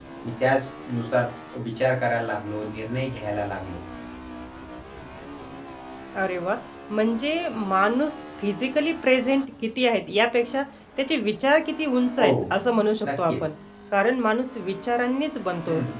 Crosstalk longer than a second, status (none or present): none